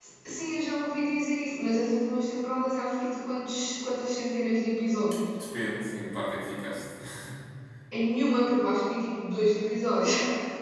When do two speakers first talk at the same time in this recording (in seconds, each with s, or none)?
none